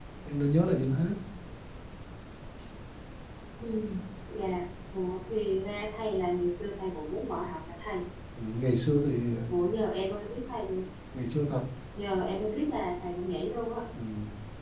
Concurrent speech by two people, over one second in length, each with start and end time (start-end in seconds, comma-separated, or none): none